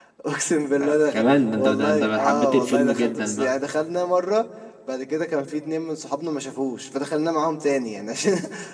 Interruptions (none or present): present